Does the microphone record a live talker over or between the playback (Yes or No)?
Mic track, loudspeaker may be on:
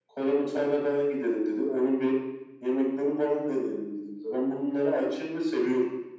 No